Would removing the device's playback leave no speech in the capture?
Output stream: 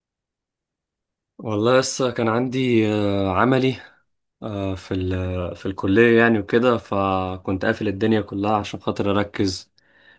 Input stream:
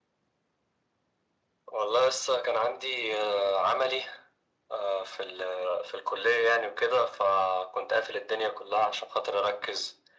Yes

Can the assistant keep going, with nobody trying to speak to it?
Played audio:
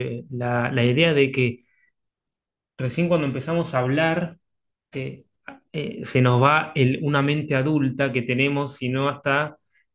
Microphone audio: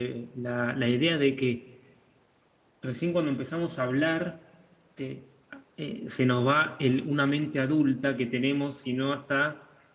Yes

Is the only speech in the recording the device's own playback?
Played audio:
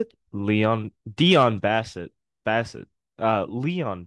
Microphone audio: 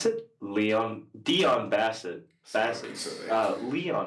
No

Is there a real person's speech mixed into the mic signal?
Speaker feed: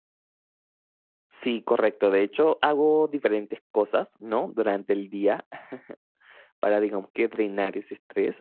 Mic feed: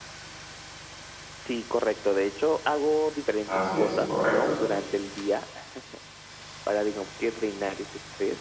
Yes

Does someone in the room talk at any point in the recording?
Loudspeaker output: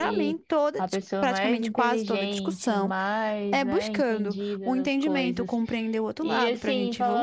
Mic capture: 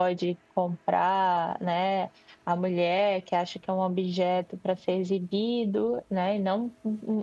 Yes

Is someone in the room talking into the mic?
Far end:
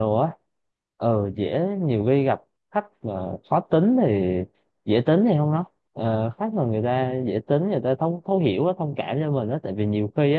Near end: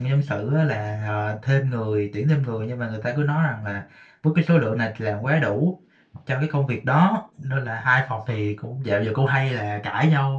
Yes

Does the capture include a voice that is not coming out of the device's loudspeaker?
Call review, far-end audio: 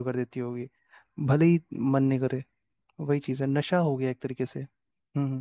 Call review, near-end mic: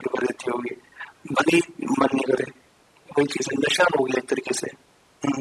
No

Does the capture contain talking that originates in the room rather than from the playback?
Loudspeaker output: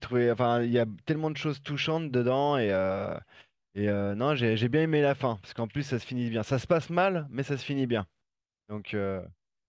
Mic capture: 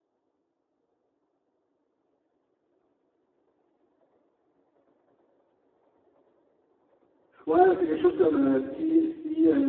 Yes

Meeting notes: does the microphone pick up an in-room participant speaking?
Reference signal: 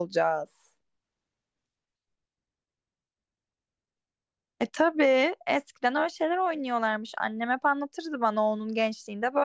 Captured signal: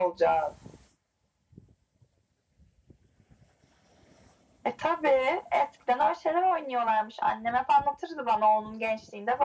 No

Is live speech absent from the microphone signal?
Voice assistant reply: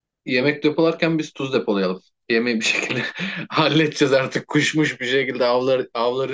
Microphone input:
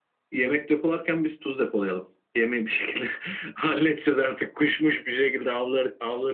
Yes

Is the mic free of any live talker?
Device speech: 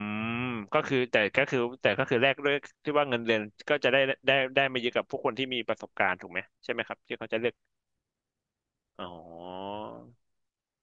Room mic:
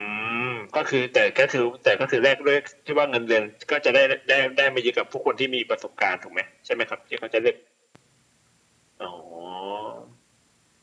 Yes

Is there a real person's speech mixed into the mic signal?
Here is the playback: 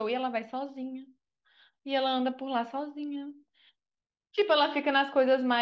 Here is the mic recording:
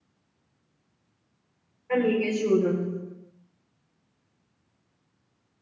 Yes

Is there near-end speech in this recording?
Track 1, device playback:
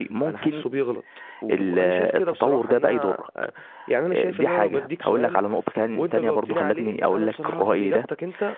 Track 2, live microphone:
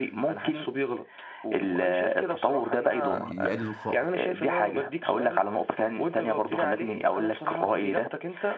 Yes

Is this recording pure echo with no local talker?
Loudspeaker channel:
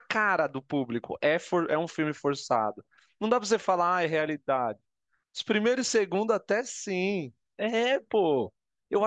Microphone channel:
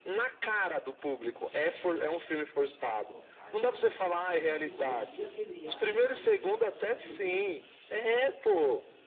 No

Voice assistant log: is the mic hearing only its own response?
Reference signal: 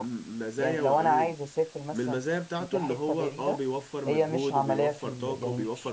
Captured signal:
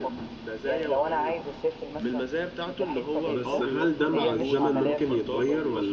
No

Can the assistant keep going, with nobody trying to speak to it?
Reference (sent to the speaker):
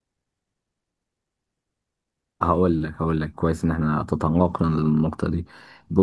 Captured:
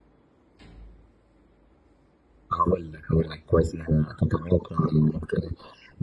Yes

